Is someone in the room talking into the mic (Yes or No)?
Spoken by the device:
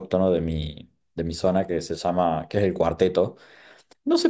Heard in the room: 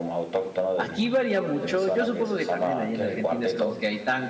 Yes